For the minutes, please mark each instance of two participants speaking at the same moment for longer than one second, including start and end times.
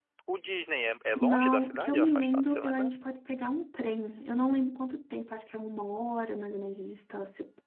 1.2-2.9

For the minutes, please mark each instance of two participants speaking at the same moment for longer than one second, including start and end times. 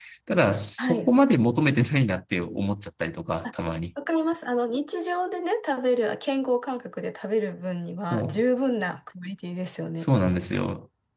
none

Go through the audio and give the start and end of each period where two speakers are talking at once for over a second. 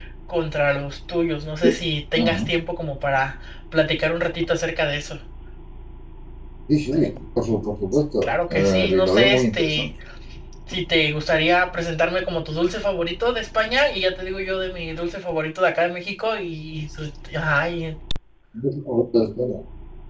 8.2-9.9

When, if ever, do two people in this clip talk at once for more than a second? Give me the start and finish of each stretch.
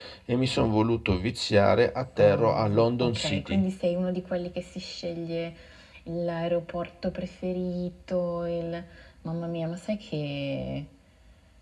2.2-3.6

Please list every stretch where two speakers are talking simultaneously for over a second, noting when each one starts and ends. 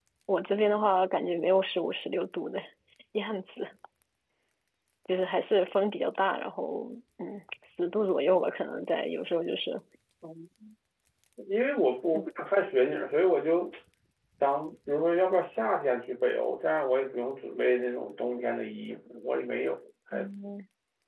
none

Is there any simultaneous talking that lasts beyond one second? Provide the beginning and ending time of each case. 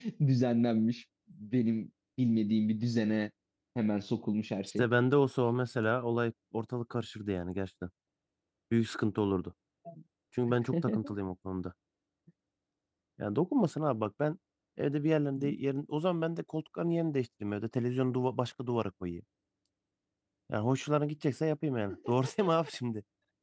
none

